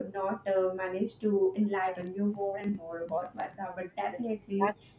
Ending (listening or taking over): taking over